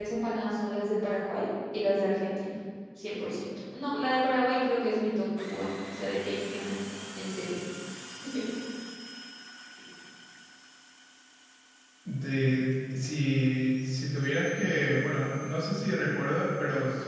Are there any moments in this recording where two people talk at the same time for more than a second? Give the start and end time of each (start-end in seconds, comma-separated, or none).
none